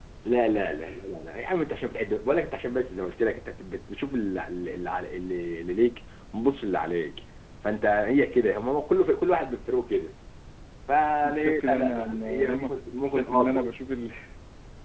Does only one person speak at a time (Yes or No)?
No